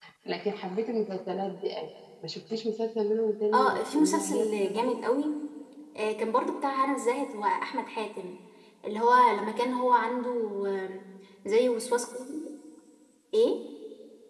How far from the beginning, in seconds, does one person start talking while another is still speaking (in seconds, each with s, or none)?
3.5 s